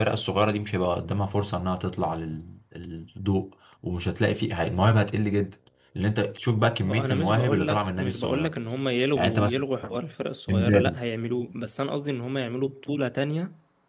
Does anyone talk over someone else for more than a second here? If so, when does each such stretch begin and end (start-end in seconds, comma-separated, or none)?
6.8-8.5